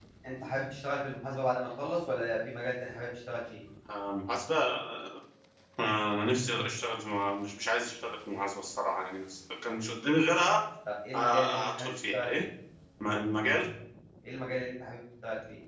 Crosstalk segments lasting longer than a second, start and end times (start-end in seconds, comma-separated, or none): 11.1-12.5